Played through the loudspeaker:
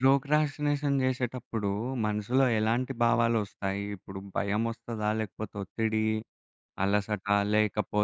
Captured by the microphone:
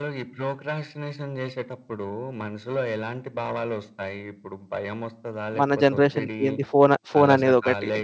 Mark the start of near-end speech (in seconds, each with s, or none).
5.6 s